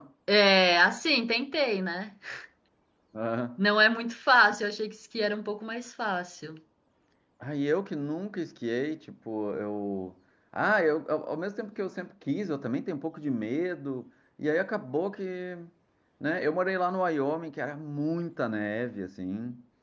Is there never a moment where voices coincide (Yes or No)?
Yes